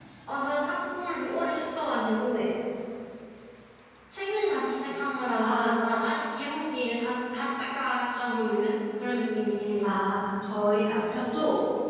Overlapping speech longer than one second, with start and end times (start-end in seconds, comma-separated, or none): none